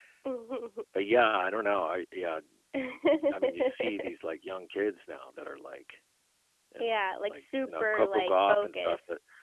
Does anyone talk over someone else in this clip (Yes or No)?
Yes